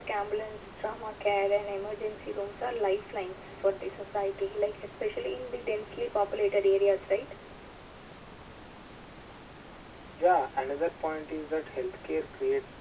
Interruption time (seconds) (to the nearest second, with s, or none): none